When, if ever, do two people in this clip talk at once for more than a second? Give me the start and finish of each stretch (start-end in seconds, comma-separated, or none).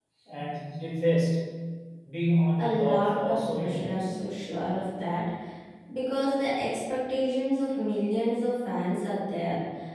2.6-4.1